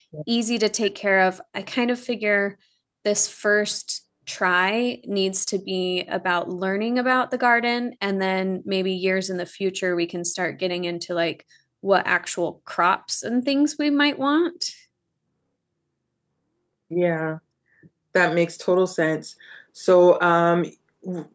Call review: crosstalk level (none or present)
none